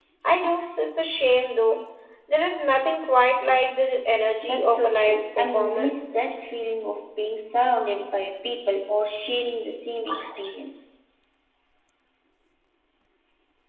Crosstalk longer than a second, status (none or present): present